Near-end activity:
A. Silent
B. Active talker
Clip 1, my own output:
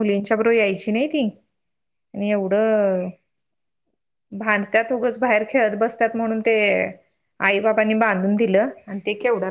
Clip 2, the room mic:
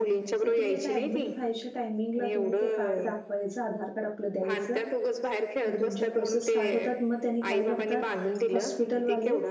B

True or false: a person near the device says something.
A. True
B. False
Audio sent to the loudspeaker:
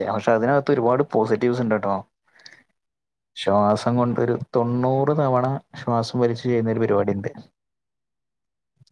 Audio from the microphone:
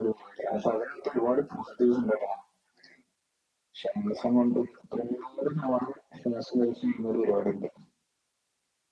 B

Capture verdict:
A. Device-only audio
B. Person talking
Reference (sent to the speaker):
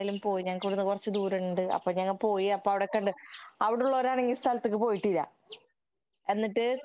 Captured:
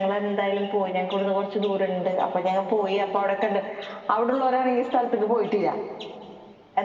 A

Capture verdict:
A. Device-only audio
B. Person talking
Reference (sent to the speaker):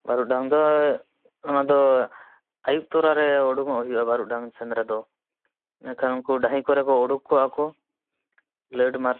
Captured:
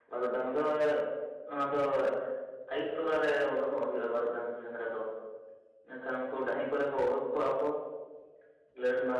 A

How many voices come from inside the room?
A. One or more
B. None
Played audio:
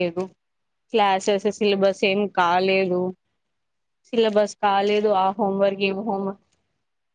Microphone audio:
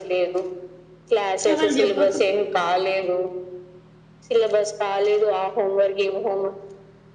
A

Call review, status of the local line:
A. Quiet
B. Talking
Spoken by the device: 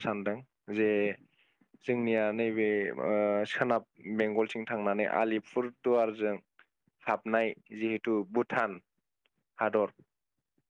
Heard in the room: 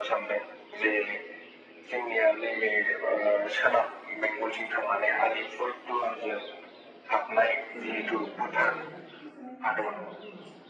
B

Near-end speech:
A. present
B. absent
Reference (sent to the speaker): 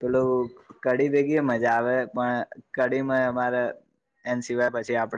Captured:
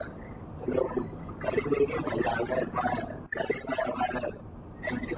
B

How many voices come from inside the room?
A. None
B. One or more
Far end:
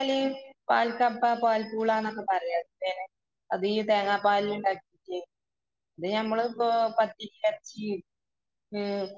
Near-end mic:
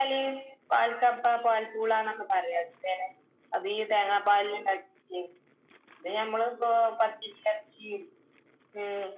A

